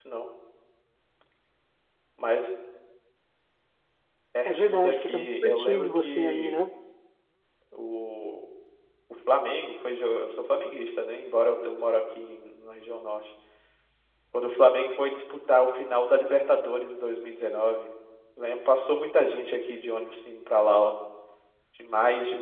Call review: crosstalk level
present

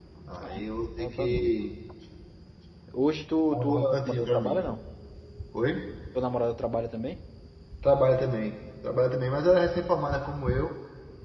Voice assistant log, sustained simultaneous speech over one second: present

